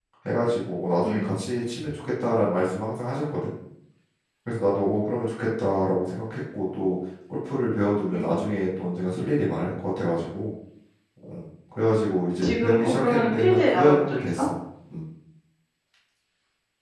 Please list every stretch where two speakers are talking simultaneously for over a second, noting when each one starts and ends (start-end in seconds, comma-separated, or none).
12.4-14.4